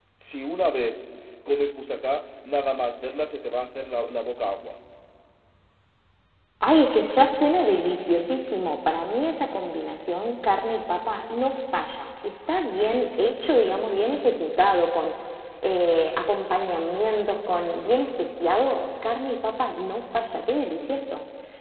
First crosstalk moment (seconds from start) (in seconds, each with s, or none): none